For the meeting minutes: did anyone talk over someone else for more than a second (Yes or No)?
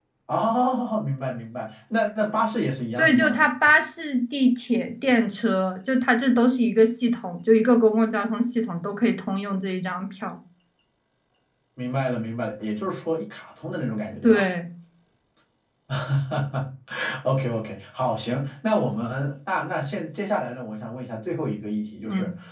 No